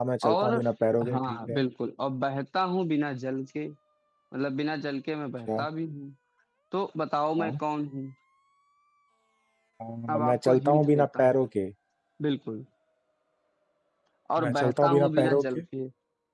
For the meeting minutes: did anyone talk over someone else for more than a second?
Yes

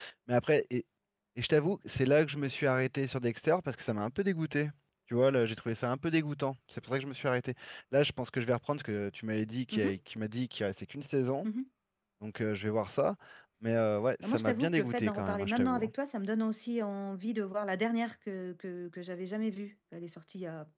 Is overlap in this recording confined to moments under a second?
No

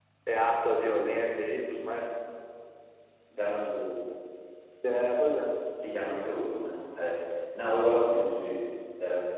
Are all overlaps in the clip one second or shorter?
Yes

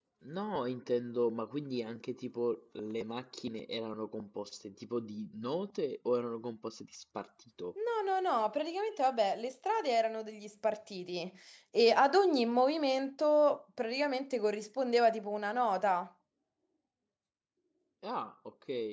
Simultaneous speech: No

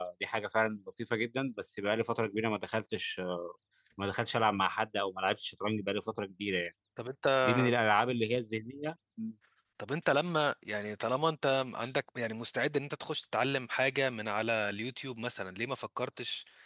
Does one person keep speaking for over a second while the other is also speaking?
No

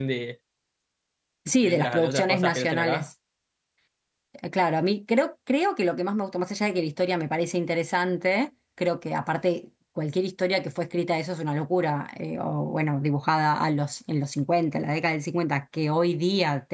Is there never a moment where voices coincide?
No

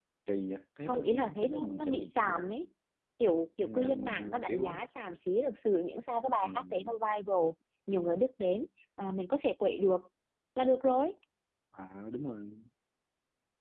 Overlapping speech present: Yes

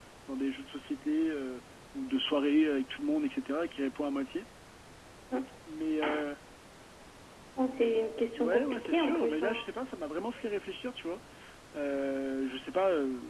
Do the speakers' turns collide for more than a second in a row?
Yes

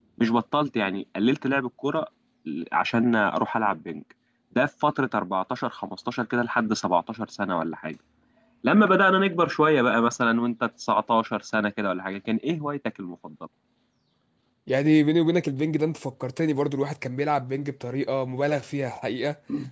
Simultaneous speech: No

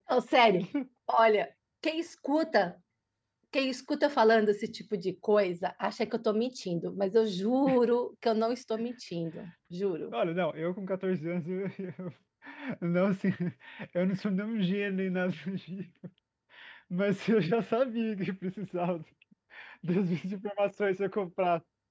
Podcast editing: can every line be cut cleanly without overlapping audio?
Yes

